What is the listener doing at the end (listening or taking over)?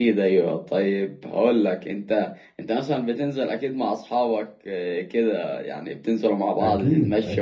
taking over